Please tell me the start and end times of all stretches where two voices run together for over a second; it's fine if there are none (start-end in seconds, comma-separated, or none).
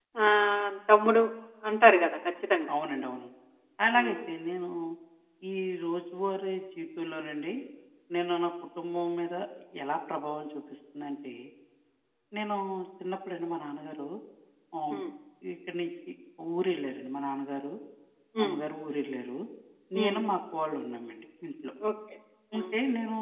none